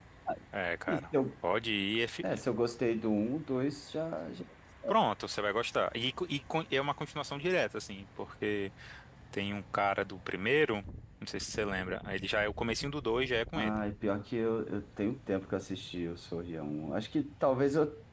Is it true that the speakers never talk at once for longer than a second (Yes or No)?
Yes